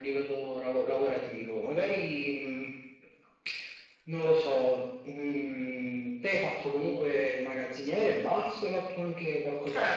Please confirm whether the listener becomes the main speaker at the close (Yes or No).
Yes